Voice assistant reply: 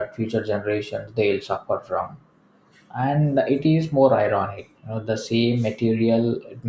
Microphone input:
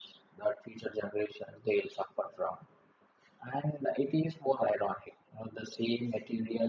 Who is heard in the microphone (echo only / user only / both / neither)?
echo only